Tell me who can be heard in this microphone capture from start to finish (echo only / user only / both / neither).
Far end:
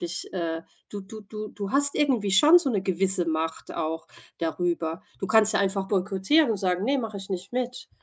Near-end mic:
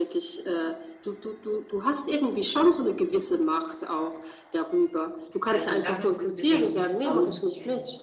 both